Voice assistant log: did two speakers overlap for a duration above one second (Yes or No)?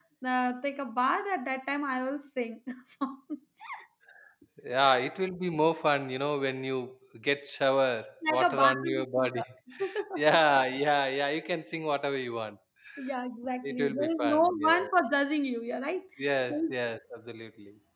Yes